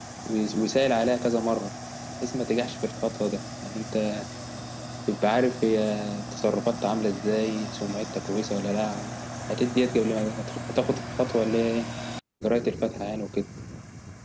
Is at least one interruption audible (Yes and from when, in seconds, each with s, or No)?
No